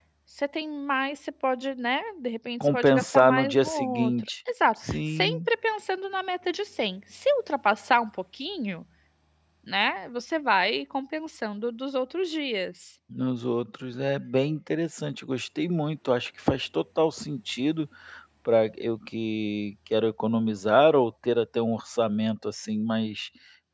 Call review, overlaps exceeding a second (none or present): present